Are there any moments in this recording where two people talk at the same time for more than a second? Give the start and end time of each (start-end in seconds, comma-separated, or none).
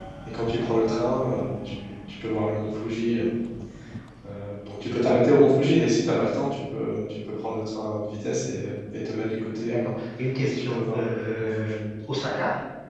10.4-11.8